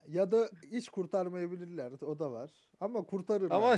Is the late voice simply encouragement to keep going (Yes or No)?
No